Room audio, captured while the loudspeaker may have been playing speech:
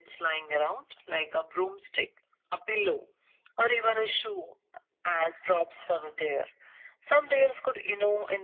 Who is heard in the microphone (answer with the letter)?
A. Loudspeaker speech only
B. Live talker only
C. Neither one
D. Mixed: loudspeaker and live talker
A